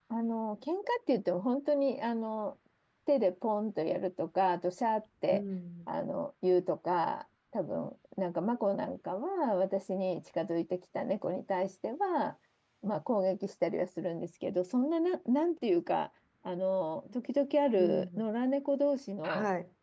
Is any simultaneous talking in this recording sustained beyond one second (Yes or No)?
No